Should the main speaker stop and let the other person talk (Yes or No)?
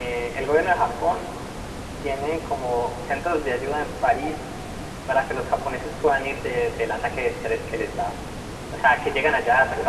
No